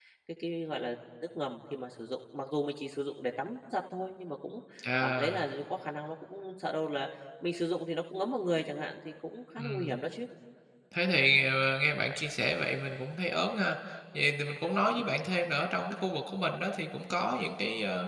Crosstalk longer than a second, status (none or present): none